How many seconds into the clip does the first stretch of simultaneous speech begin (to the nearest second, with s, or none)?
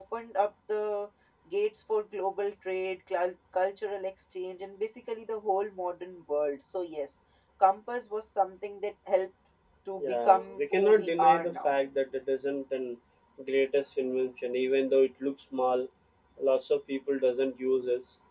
10 s